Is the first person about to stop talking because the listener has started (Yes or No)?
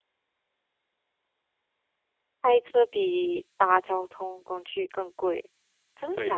Yes